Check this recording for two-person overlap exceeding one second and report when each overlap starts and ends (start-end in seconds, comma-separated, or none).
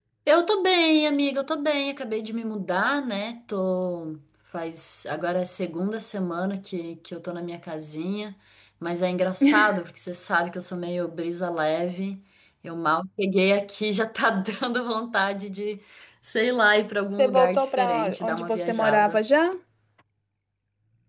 17.2-19.2